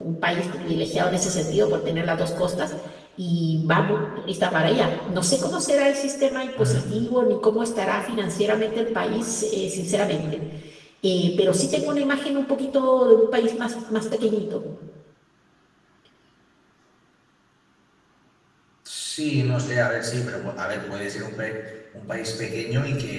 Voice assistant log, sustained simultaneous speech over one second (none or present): none